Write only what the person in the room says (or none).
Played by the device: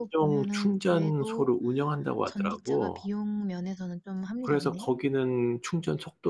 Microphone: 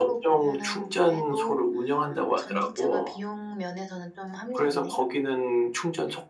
none